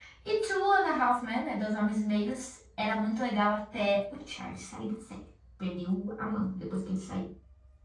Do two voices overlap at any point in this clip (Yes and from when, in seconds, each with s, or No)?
No